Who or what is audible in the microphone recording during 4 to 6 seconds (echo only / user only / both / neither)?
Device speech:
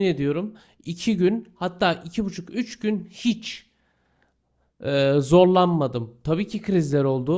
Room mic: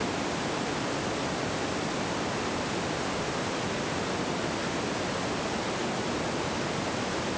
neither